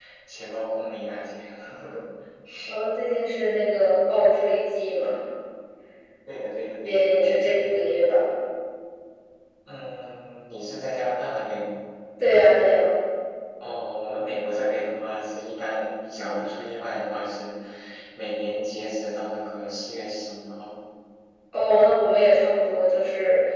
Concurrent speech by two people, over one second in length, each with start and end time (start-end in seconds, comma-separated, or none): 6.8-8.2